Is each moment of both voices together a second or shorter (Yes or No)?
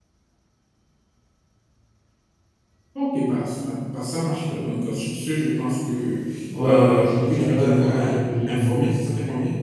No